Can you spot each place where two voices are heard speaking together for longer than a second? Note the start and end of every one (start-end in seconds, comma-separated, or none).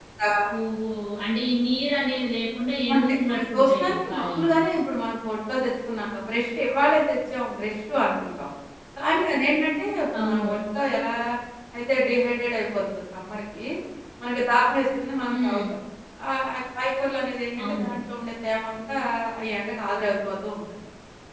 2.9-4.5